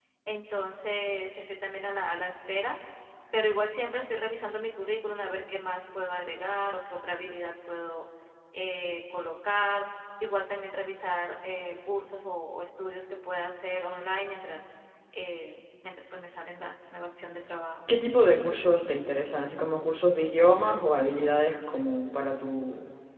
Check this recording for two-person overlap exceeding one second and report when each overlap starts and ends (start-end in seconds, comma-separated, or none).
none